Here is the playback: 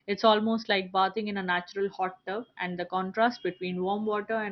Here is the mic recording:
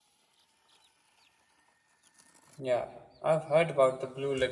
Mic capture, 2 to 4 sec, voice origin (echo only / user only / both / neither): user only